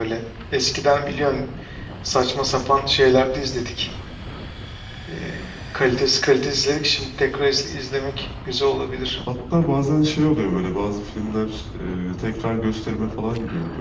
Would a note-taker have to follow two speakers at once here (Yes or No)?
No